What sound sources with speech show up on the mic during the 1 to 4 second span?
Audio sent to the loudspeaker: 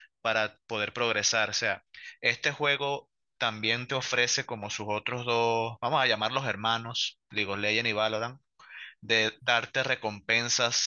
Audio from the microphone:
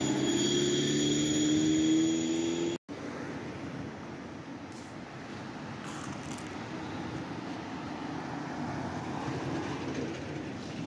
neither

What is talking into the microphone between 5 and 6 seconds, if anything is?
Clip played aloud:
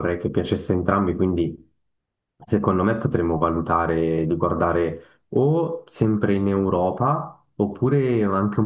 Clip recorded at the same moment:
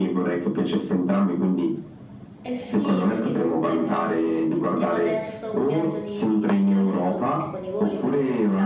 both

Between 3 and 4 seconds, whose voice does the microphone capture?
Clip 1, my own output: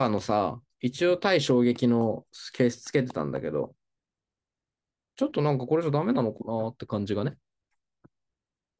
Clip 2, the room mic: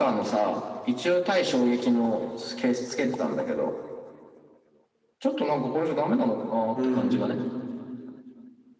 echo only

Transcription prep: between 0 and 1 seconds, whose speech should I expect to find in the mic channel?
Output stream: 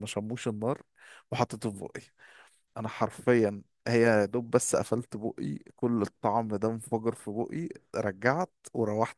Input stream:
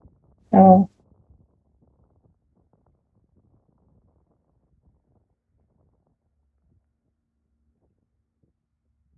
user only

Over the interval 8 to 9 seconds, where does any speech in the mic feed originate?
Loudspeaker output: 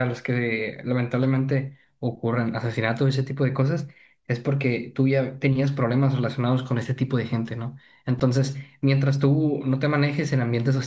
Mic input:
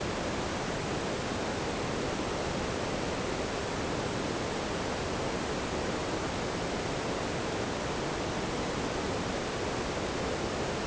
neither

